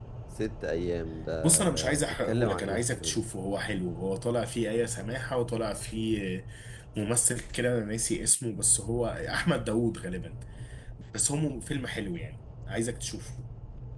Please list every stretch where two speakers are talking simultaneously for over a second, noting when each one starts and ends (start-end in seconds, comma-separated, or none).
1.4-3.2